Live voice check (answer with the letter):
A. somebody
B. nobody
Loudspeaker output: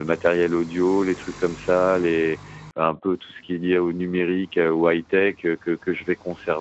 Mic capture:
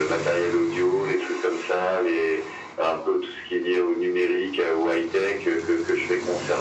B